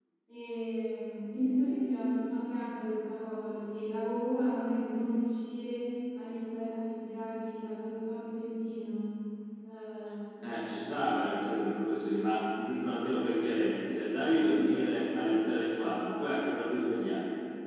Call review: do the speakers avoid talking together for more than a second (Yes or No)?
Yes